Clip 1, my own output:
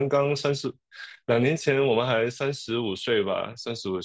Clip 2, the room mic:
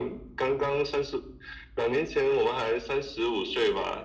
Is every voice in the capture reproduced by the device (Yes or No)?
Yes